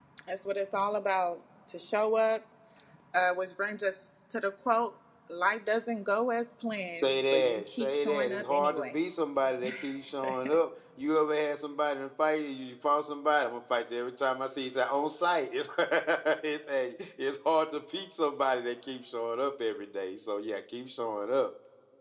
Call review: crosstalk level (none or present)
present